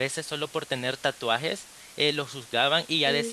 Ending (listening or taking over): listening